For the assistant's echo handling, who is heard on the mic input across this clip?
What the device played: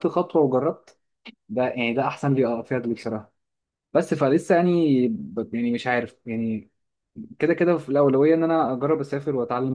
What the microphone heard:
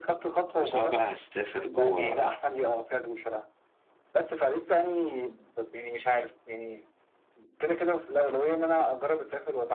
both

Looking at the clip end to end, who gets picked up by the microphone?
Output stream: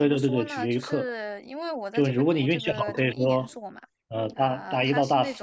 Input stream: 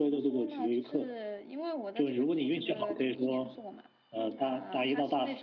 echo only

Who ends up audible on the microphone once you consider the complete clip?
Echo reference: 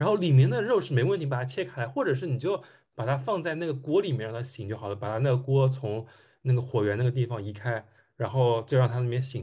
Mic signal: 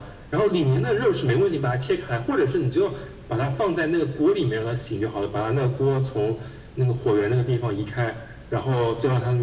echo only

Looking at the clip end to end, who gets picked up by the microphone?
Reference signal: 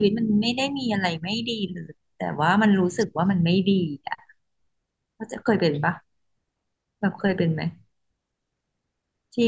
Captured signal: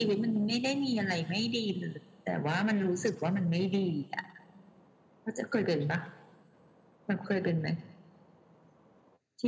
echo only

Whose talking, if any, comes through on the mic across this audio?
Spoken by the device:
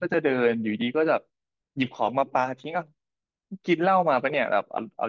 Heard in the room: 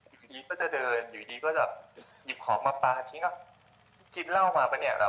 echo only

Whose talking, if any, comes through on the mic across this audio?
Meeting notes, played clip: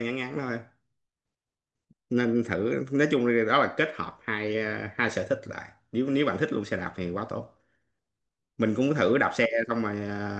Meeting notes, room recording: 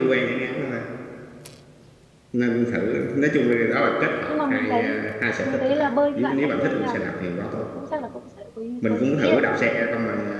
both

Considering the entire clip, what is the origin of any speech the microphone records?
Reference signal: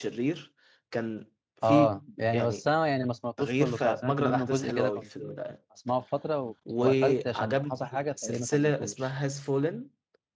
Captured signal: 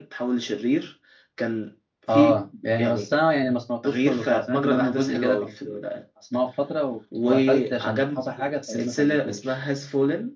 echo only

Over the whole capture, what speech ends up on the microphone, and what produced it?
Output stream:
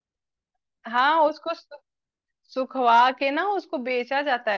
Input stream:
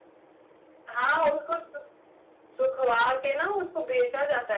echo only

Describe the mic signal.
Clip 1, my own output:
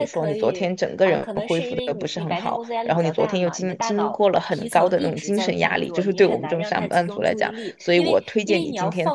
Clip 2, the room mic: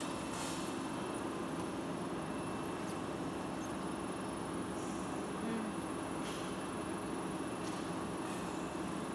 neither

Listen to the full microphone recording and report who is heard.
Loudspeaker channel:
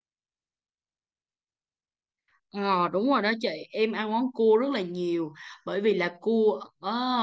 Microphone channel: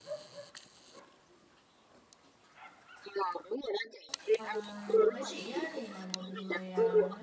both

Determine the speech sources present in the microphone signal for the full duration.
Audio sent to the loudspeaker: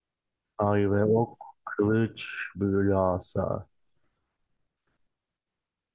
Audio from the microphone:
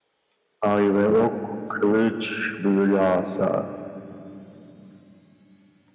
echo only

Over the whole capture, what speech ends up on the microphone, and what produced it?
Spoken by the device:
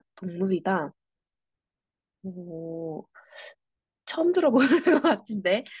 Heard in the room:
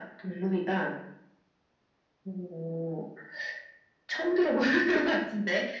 echo only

